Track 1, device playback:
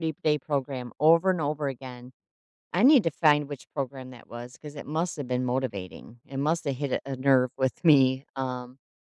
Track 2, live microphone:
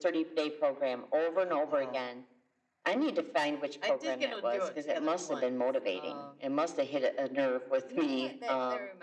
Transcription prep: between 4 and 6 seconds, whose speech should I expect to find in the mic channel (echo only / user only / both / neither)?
both